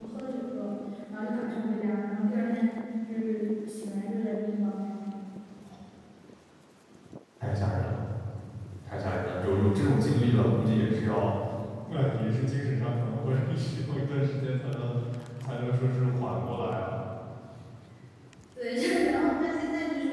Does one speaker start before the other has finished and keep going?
No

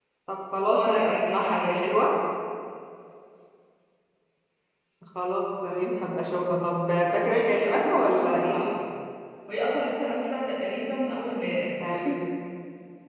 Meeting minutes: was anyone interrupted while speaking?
Yes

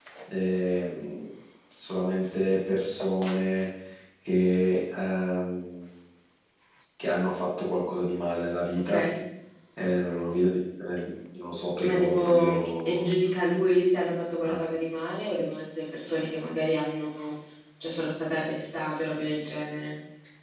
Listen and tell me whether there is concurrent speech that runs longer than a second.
Yes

